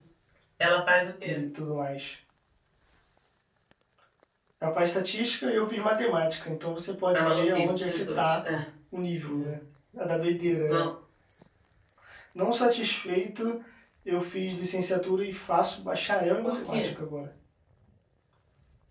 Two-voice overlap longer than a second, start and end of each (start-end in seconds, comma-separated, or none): 7.1-8.4